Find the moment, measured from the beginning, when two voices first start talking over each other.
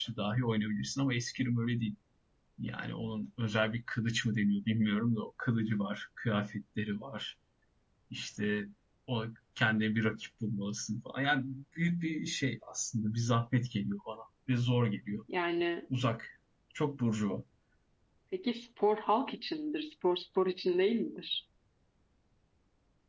none

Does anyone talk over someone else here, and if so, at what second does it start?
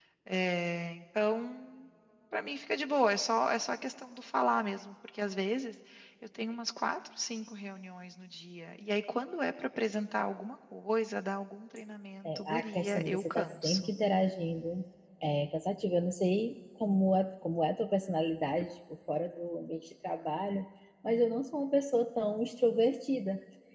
12.2 s

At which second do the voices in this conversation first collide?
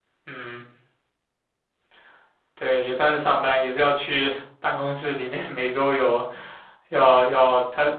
none

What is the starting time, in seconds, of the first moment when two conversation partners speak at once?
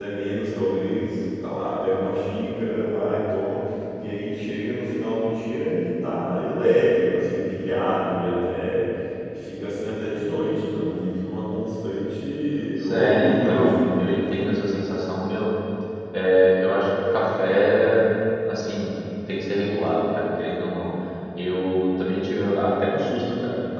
12.8 s

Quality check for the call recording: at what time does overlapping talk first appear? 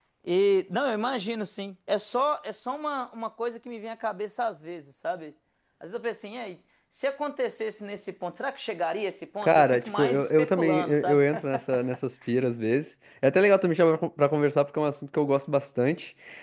9.4 s

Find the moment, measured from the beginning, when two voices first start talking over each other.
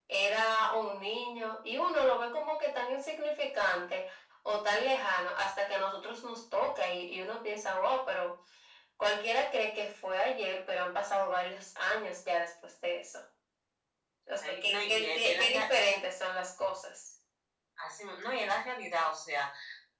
14.4 s

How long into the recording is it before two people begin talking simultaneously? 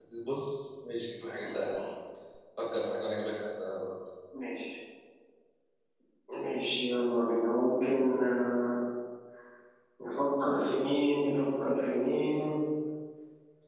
none

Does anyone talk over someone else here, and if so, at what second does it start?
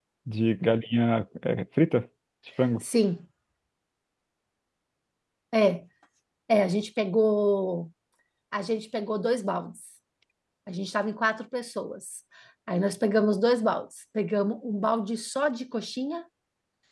none

